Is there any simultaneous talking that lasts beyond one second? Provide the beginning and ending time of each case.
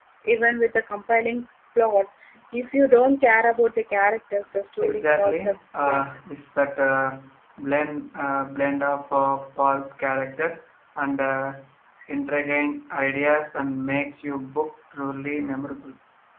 4.8-6.0

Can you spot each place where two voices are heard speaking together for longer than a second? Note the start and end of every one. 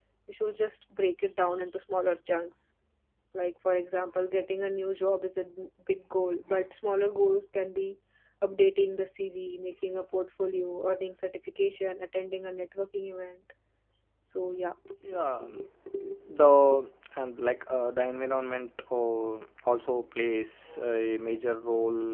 none

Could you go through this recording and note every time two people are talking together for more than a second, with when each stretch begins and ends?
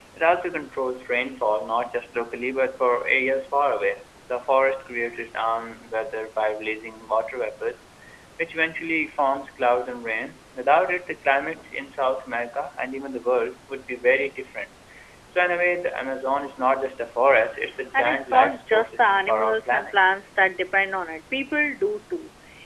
17.9-20.0

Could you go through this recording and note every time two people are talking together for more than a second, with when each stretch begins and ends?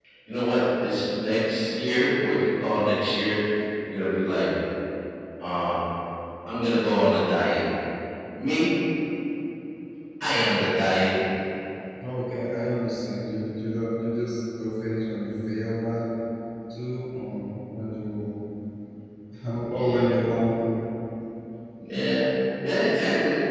none

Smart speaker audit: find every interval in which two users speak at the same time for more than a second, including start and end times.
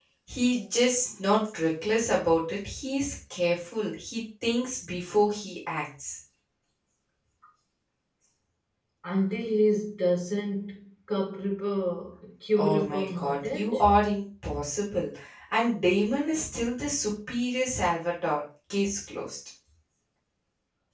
12.6-13.8

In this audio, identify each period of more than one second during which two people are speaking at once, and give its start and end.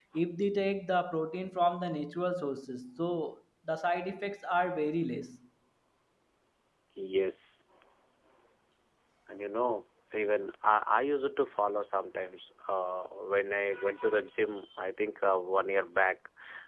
none

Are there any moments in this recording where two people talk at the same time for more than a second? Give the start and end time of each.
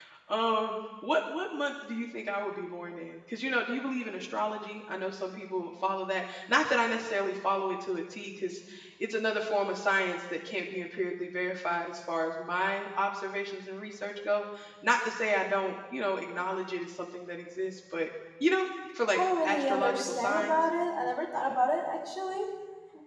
19.1-20.6

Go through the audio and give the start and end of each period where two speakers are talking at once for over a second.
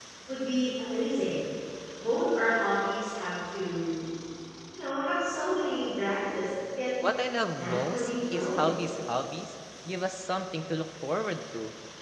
7.6-9.0

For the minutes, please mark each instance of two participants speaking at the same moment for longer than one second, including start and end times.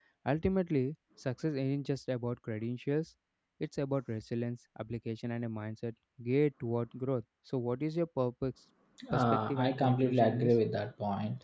9.1-10.5

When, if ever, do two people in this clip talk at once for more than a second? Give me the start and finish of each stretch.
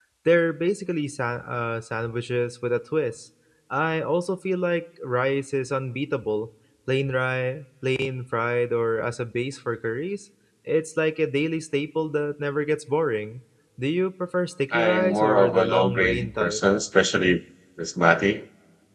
14.7-16.6

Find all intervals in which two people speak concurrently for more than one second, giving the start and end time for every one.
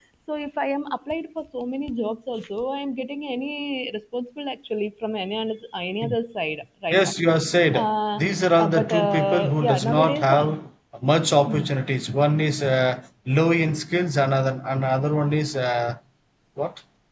8.6-10.5

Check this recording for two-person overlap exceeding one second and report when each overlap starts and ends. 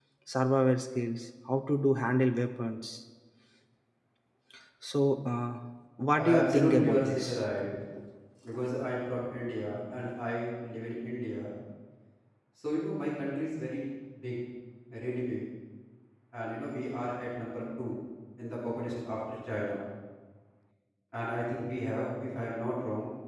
6.2-7.4

